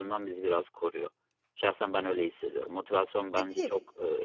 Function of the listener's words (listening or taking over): listening